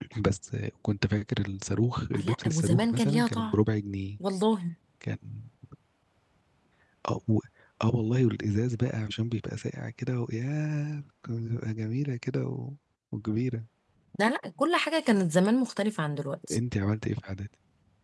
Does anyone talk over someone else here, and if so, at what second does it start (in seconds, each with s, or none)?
2.1 s